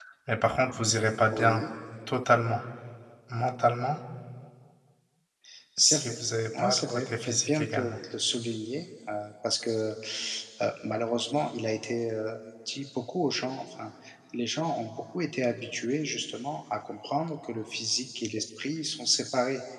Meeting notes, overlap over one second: present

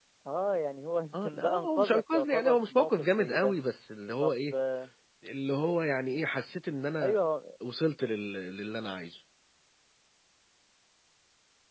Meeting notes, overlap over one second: present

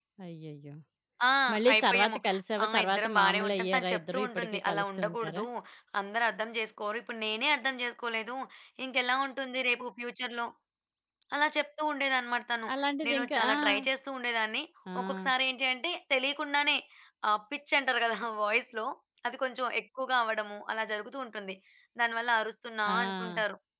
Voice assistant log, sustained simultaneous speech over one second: present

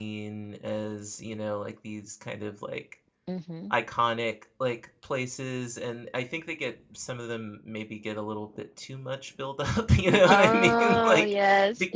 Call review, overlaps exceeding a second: present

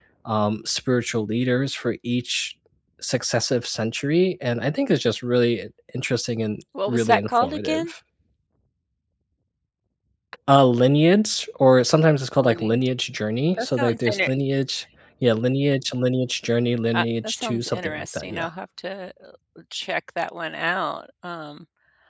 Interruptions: present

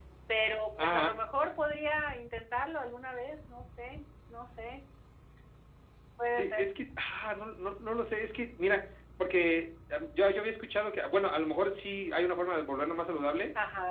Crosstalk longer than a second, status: none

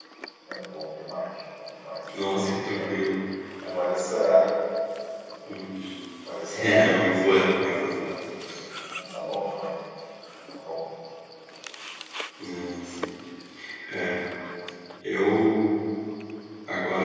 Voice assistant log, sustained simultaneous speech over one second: present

